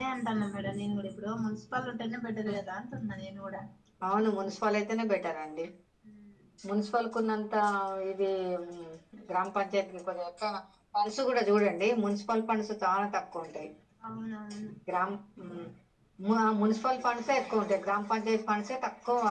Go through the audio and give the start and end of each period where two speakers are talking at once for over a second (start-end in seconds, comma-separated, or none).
none